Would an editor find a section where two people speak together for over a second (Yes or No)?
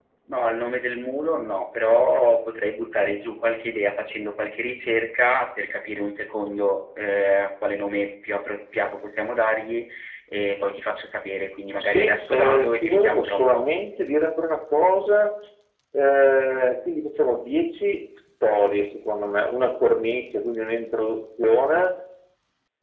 Yes